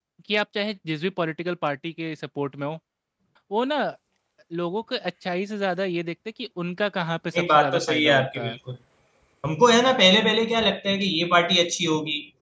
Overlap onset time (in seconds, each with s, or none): 7.3 s